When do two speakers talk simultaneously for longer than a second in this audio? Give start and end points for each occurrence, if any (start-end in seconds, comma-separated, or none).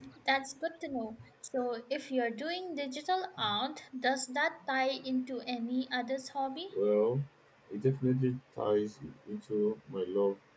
none